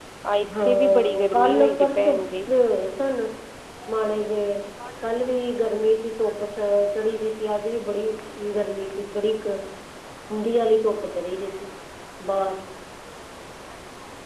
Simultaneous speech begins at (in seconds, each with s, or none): 0.6 s